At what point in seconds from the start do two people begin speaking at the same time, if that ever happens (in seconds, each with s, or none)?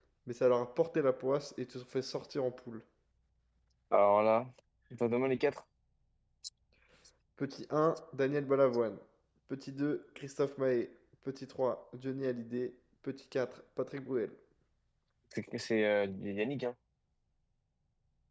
none